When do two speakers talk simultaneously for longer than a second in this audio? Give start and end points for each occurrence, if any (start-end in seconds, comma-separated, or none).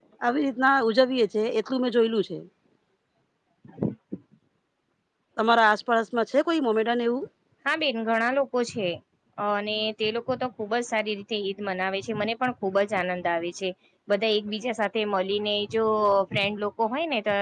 none